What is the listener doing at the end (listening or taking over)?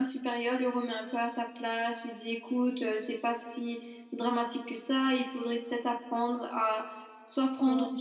listening